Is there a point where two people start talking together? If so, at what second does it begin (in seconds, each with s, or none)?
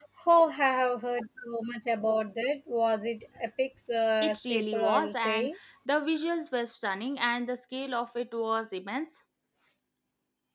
4.2 s